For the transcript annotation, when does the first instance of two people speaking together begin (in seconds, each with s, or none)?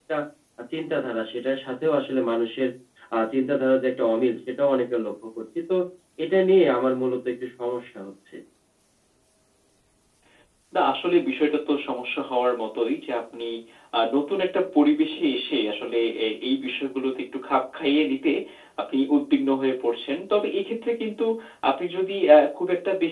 none